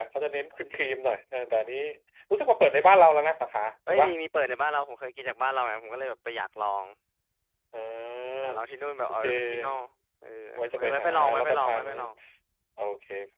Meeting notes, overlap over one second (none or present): present